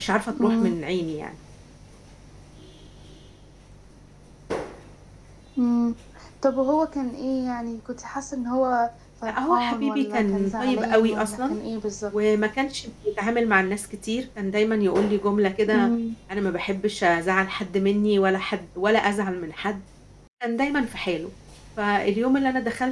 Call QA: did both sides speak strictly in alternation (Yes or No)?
No